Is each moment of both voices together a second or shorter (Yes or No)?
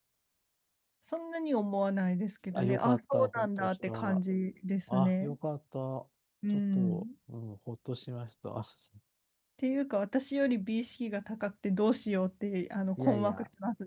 No